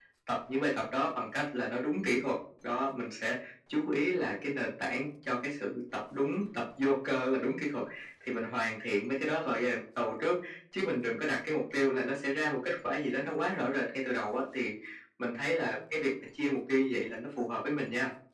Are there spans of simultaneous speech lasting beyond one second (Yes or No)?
No